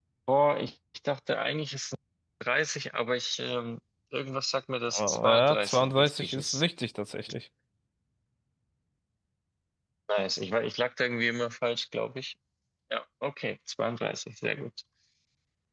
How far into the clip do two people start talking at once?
4.9 s

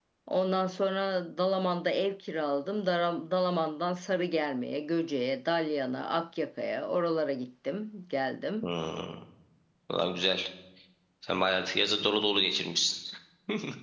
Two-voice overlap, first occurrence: none

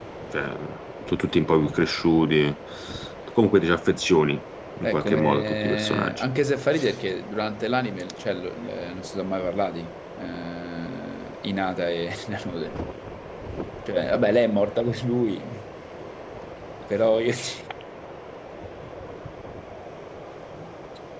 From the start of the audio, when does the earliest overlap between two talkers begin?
4.8 s

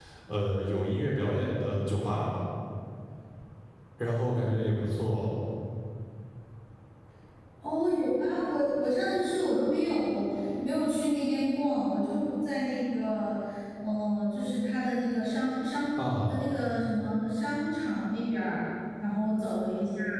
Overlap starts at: none

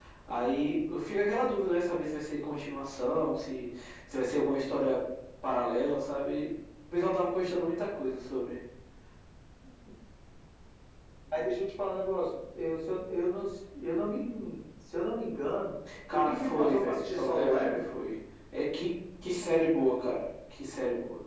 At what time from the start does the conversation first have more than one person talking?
16.1 s

